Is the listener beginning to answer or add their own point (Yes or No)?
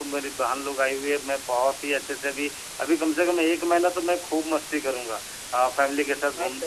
No